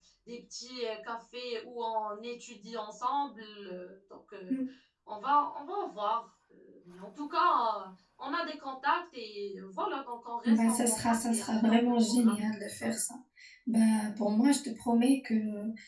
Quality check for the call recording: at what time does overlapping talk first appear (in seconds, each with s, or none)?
10.4 s